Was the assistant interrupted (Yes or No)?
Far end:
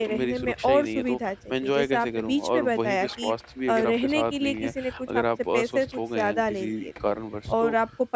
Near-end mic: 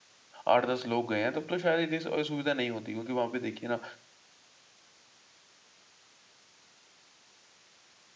Yes